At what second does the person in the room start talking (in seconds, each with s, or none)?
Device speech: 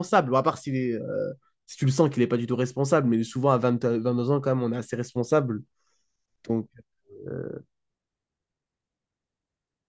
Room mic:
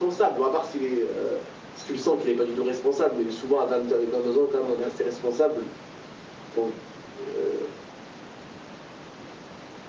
none